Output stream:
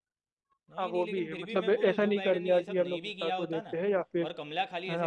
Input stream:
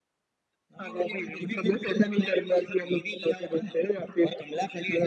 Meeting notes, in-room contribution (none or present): none